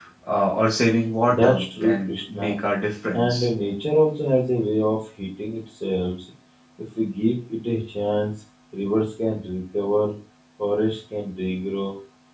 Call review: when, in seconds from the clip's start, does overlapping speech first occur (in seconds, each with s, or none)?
1.3 s